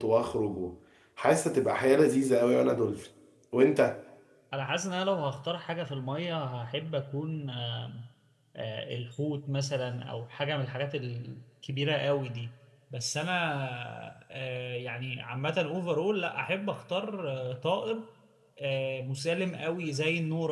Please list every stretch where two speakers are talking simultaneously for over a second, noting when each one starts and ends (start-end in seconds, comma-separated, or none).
none